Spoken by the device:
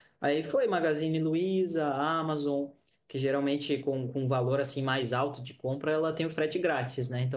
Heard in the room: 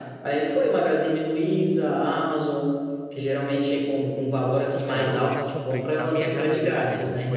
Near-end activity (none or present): present